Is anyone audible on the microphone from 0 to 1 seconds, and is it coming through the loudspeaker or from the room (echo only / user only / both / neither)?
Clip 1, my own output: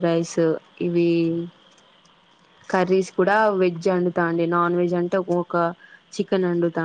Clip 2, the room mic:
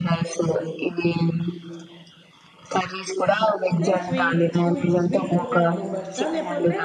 echo only